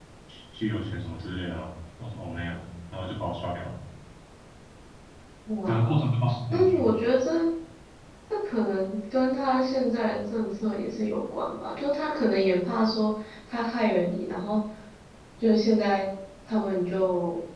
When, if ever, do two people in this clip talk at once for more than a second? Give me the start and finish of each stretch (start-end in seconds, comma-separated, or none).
none